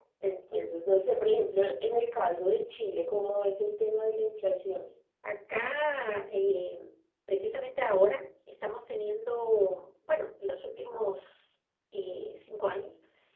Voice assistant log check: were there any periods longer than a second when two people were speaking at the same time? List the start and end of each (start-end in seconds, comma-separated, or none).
none